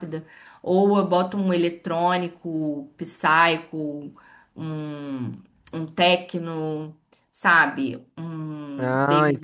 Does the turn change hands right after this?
Yes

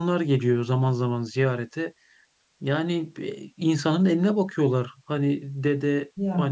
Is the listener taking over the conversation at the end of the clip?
No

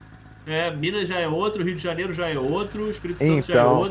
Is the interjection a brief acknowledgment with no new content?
Yes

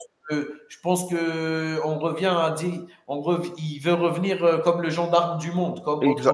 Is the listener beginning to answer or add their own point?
Yes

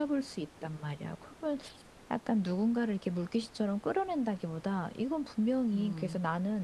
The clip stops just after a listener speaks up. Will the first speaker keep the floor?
Yes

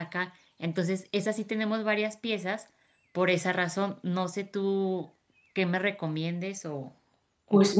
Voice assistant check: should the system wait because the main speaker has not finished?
No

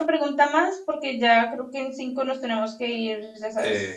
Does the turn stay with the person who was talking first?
No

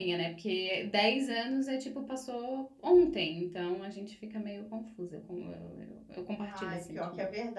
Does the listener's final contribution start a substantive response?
Yes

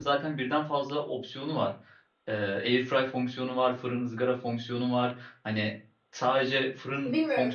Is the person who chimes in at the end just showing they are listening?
No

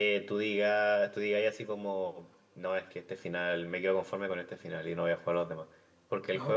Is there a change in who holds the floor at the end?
No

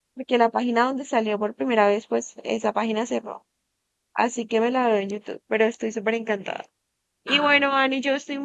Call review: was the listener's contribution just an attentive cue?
Yes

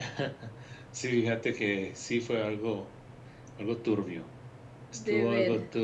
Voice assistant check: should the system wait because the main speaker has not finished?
Yes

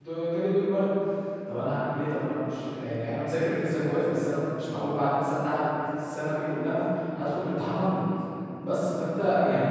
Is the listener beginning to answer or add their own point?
No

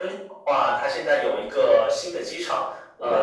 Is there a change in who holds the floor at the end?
No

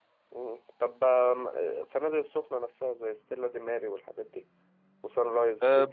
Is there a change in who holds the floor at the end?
Yes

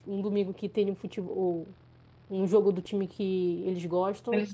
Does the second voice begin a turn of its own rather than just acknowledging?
No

